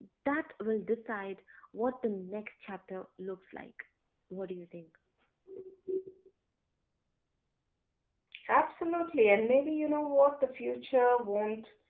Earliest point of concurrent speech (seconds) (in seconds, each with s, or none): none